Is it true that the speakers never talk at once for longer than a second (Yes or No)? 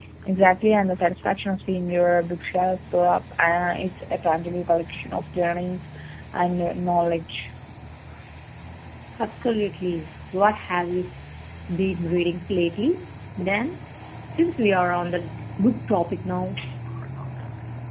Yes